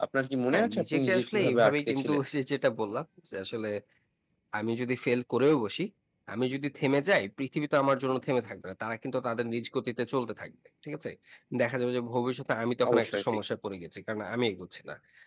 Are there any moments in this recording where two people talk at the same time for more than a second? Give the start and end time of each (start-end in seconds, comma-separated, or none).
0.5-2.2